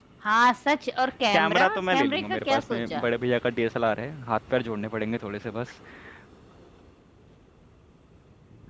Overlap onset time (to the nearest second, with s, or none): 1 s